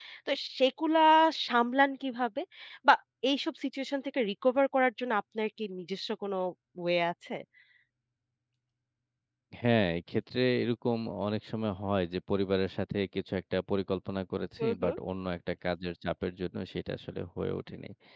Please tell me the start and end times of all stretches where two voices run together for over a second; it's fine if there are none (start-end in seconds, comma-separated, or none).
none